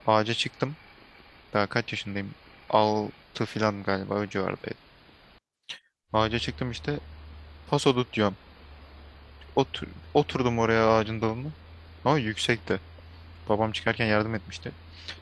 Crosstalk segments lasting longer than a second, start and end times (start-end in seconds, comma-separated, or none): none